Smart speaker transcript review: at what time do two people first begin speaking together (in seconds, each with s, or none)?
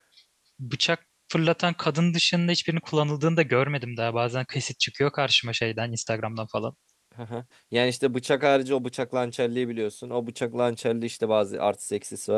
none